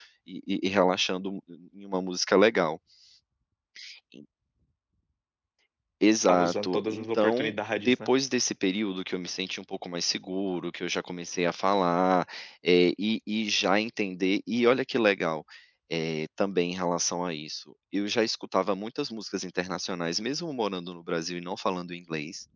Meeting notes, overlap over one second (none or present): present